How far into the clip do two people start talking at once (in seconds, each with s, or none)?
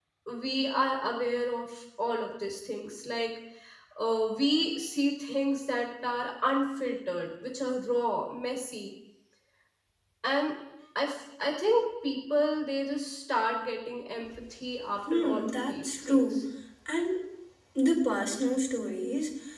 15.1 s